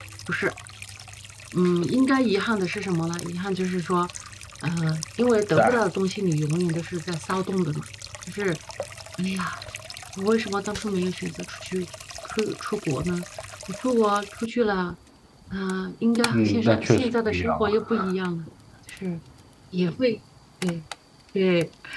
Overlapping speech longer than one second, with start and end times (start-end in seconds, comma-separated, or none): 16.3-18.1